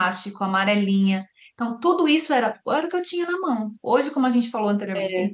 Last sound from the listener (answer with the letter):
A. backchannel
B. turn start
A